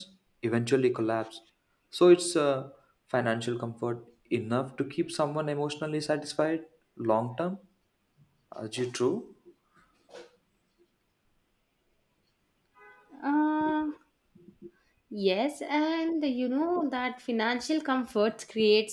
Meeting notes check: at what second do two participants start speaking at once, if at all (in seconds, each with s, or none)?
none